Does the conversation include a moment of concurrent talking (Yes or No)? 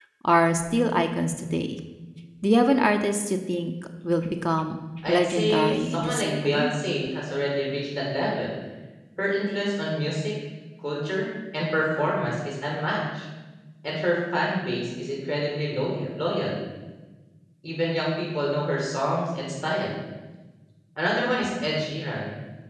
Yes